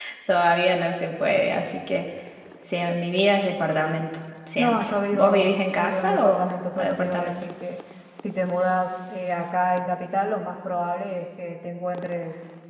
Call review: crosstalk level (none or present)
present